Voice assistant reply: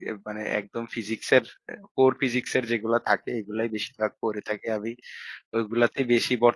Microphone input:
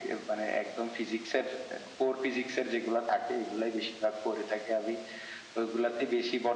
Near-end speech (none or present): none